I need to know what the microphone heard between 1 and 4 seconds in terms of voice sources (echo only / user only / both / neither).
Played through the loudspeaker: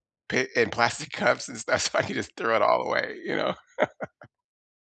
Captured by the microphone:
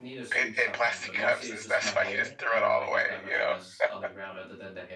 both